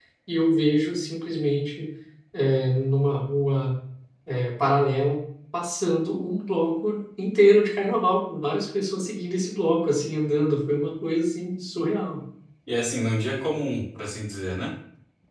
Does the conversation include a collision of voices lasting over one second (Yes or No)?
No